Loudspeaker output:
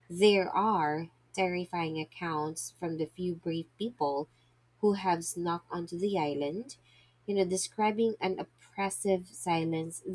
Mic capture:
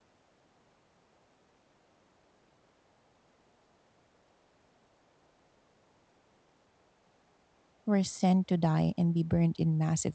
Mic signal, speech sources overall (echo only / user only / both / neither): user only